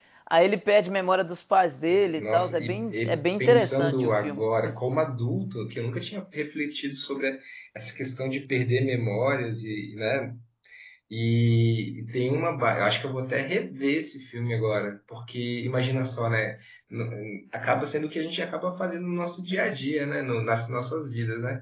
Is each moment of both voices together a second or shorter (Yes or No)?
No